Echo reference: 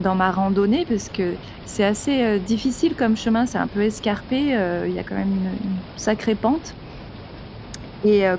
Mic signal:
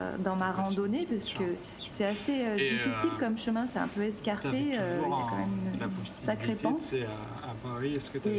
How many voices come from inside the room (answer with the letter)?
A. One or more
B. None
A